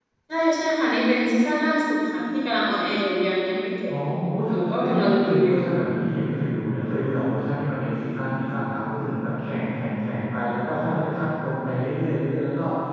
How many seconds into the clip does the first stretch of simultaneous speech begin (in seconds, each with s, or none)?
4.5 s